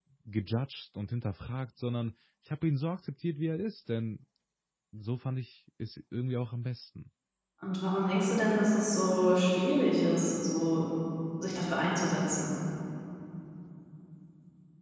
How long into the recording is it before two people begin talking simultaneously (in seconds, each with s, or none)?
none